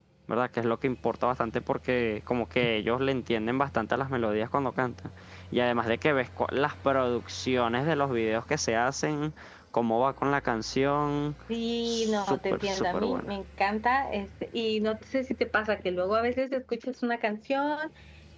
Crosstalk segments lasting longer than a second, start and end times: 11.8-13.3

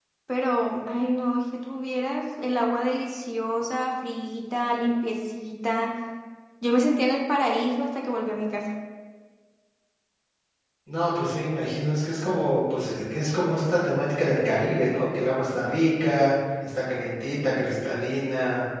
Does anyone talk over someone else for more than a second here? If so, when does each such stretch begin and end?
none

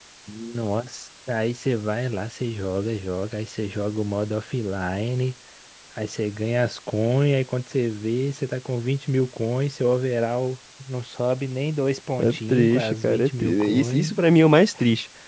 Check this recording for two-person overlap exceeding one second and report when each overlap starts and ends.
12.2-14.1

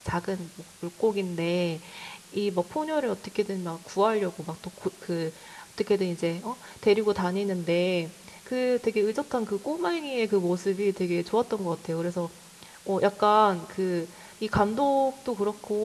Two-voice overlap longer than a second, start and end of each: none

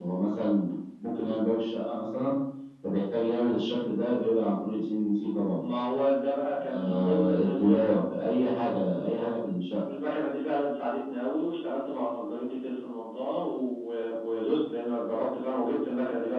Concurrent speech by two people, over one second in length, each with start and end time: 6.7-8.0

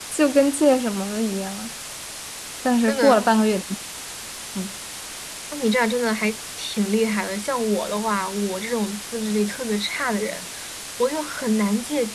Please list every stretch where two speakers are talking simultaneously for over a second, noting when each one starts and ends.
none

